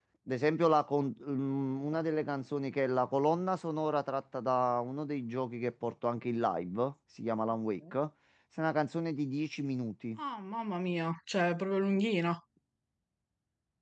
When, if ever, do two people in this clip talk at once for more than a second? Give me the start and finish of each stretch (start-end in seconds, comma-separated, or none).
none